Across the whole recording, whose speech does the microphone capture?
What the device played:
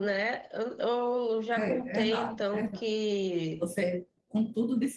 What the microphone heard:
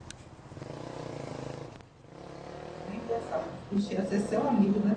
user only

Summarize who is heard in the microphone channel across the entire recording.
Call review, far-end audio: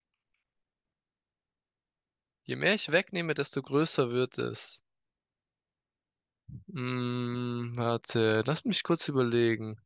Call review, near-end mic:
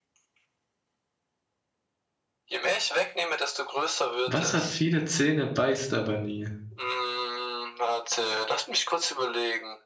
both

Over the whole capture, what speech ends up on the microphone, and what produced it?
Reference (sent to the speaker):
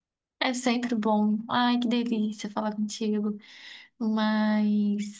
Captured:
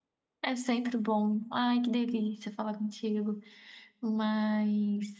echo only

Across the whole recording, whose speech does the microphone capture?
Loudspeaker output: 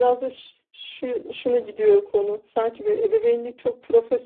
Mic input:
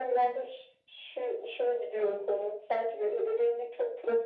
echo only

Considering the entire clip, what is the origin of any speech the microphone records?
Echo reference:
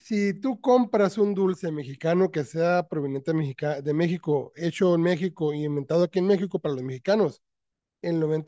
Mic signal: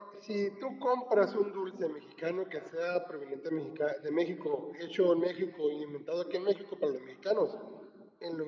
echo only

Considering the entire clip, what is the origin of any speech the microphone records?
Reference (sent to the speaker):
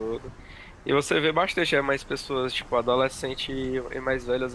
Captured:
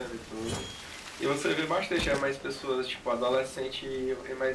echo only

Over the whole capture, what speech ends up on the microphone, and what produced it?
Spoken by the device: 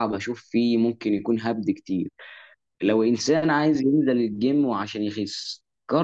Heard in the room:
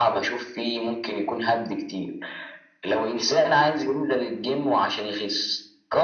echo only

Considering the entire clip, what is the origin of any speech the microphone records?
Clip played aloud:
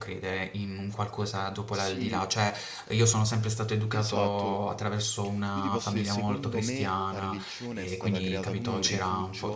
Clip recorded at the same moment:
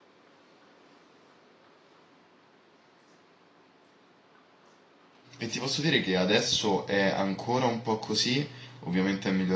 user only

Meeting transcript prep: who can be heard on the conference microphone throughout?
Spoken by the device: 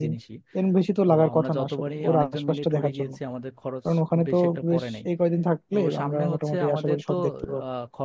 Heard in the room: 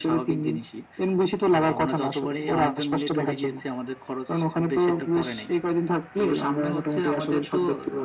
echo only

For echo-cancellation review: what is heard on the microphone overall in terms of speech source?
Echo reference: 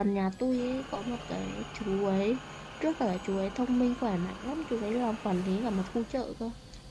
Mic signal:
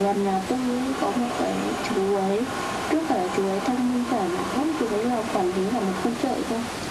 echo only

